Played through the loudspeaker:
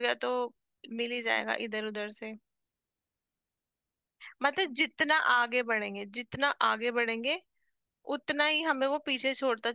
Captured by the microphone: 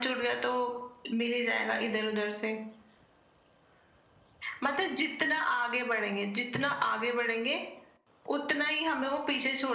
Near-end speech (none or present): none